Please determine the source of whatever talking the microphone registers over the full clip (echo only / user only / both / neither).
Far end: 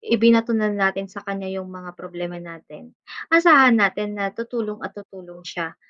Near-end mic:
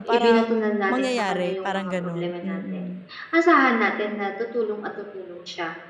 both